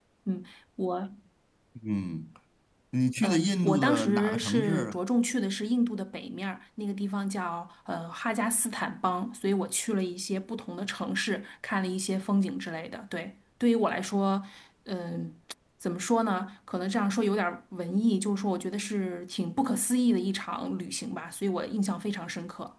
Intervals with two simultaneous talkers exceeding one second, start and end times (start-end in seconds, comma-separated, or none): 3.2-5.0